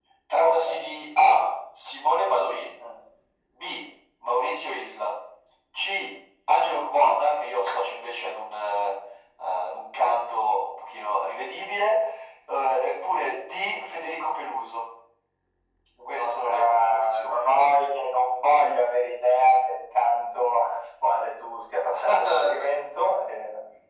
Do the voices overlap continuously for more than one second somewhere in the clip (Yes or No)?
Yes